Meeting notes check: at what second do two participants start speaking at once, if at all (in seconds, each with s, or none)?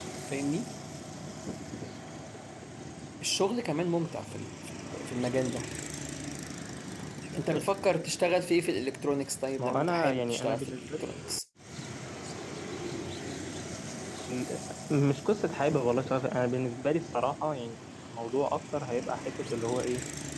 9.6 s